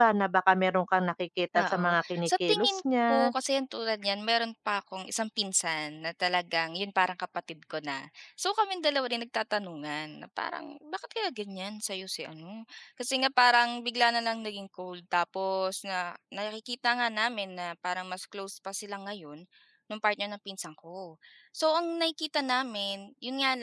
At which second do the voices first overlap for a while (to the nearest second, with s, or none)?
2 s